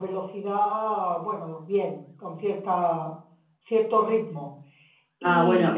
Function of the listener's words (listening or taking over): taking over